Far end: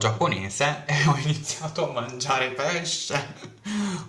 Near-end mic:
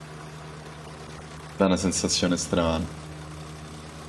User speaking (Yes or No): Yes